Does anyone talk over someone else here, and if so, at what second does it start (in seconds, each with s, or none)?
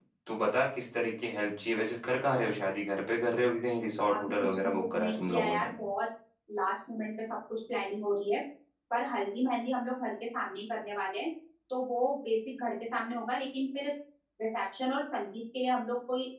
4.1 s